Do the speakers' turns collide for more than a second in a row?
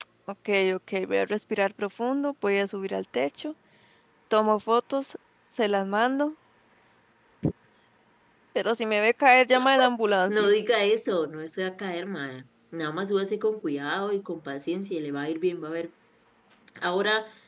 No

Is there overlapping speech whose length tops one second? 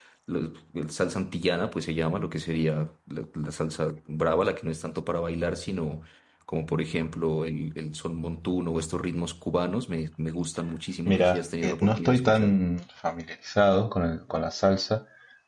Yes, from 11.1 s

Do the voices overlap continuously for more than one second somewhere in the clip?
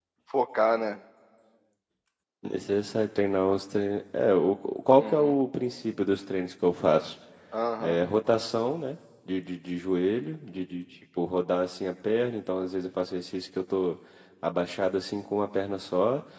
No

